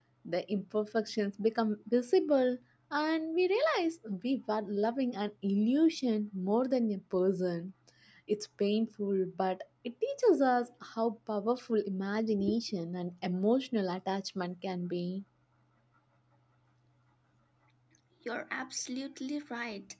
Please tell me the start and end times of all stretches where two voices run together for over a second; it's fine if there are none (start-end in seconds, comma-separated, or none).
none